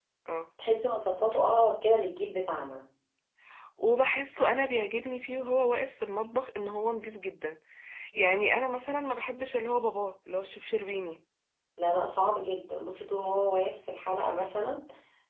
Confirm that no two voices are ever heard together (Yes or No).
Yes